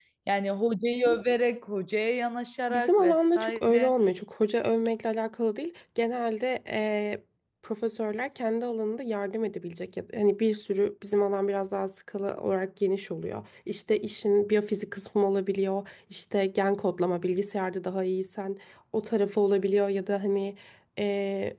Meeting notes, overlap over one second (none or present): present